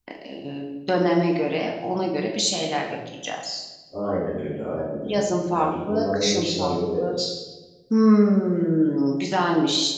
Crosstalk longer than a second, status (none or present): present